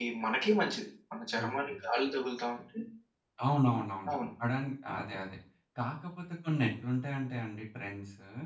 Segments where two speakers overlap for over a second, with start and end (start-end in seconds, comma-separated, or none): none